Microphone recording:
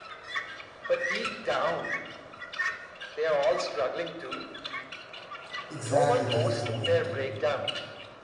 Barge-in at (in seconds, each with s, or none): 5.7 s